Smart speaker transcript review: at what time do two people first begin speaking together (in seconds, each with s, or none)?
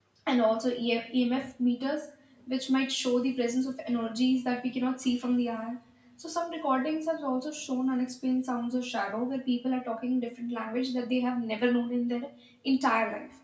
none